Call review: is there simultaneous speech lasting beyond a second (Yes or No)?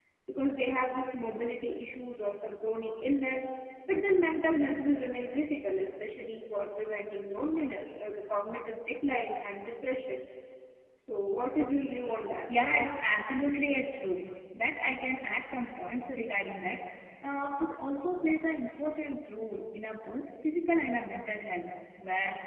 No